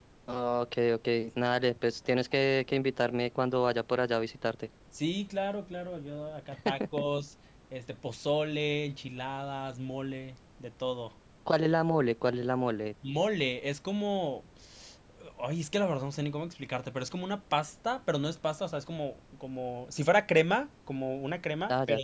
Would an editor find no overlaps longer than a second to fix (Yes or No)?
Yes